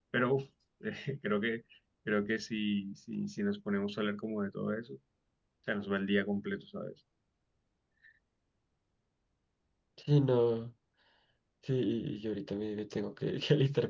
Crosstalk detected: No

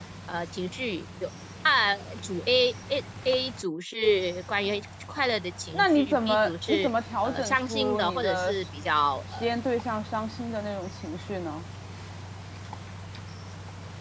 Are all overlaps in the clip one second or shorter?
No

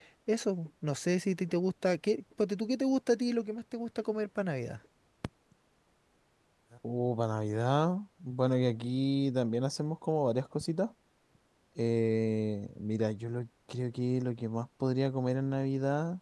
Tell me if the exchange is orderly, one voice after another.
Yes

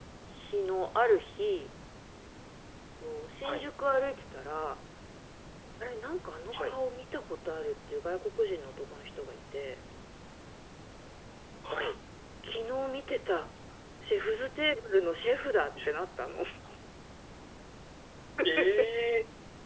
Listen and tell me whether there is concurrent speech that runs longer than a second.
No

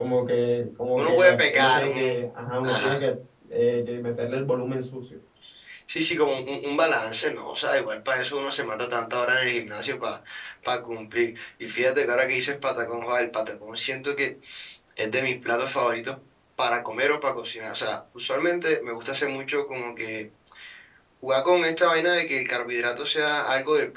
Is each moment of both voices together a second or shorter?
No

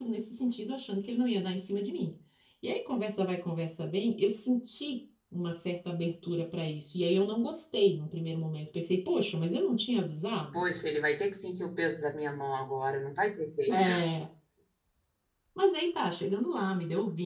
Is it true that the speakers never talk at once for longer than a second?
Yes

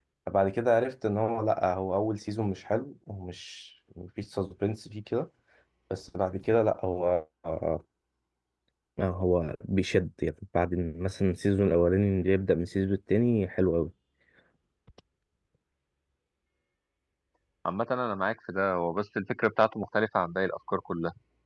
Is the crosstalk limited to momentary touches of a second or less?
Yes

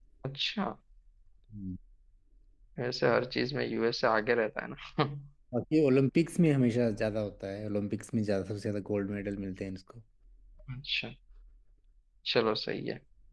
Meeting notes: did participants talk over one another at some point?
No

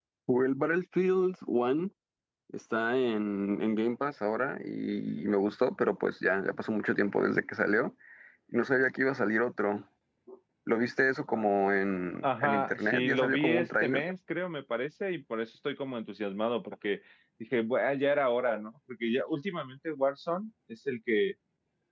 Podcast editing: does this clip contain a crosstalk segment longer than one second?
Yes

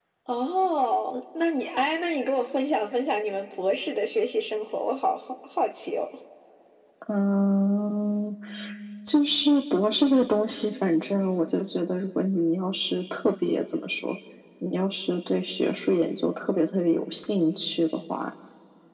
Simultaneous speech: No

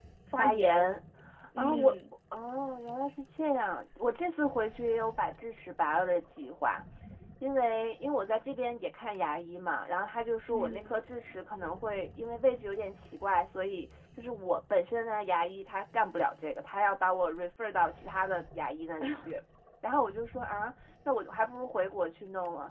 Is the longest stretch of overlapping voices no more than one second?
Yes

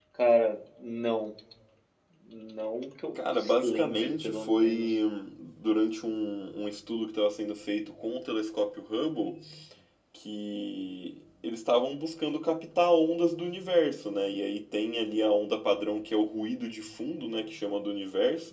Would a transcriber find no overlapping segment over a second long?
No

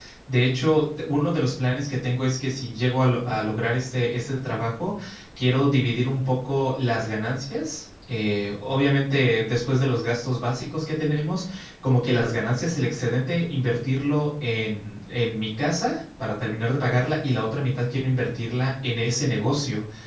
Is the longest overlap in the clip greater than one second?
No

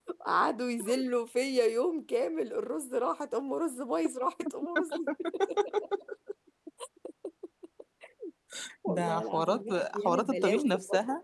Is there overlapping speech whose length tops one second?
Yes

